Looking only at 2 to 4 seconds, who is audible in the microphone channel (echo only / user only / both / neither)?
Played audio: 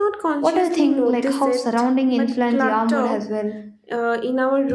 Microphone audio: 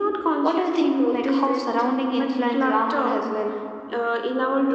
echo only